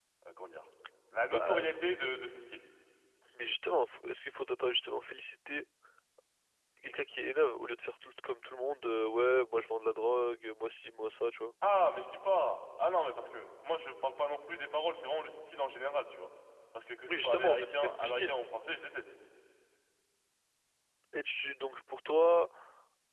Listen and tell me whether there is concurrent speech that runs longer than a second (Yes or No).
Yes